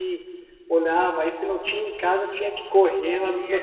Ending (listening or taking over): taking over